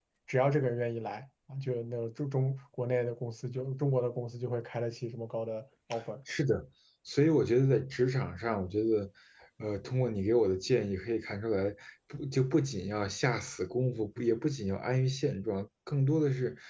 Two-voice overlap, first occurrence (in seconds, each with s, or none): none